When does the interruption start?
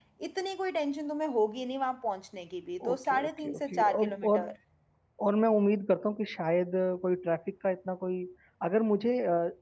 2.8 s

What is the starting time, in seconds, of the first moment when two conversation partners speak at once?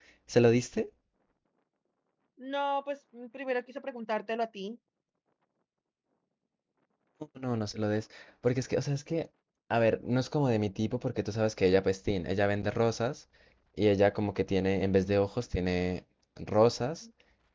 none

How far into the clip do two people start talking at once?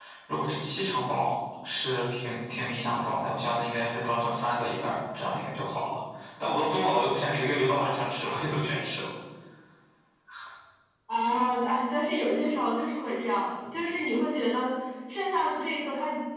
none

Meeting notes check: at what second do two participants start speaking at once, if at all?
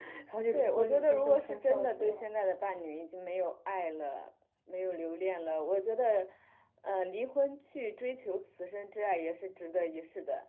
0.5 s

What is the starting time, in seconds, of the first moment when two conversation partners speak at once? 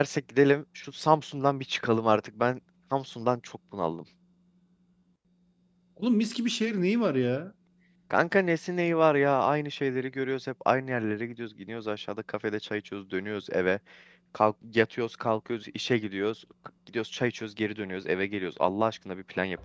none

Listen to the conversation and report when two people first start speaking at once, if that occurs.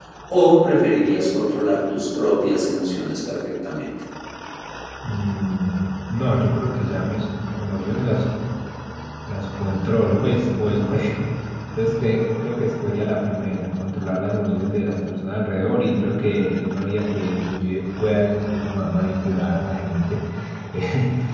none

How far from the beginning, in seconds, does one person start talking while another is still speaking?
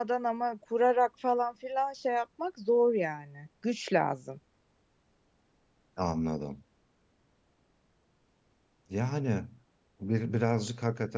none

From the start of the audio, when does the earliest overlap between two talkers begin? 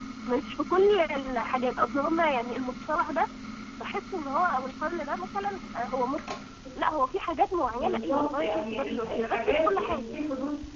7.7 s

